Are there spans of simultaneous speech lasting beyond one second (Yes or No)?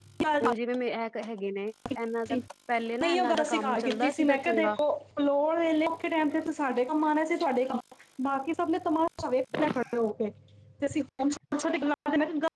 Yes